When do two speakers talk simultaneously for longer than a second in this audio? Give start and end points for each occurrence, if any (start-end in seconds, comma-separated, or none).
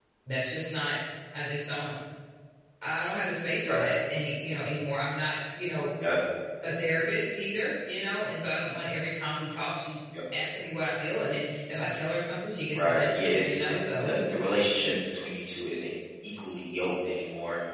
12.7-14.1